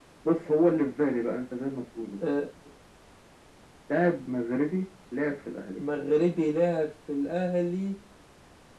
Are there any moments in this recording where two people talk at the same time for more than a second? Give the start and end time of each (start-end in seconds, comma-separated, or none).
none